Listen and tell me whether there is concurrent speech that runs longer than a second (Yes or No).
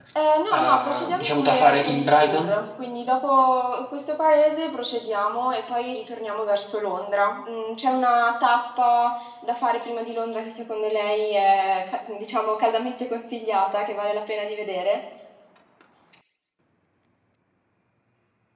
Yes